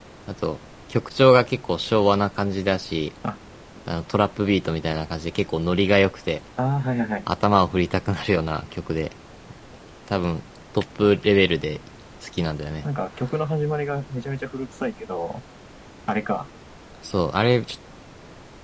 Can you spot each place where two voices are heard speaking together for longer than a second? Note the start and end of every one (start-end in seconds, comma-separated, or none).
none